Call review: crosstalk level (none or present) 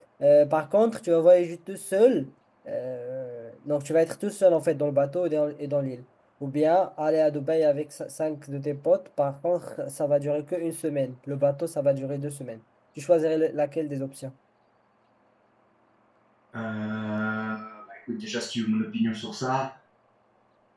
none